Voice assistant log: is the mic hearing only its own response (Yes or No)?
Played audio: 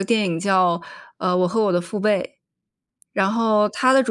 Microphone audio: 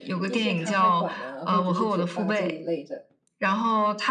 No